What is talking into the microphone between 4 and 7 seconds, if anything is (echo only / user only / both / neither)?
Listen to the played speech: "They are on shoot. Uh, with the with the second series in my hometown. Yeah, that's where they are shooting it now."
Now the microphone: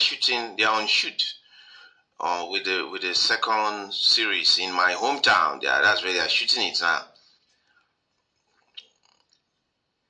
echo only